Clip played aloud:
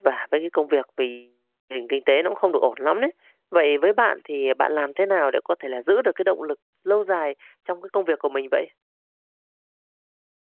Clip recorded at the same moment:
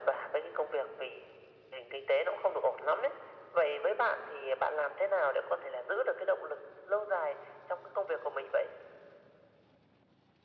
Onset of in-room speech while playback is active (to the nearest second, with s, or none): none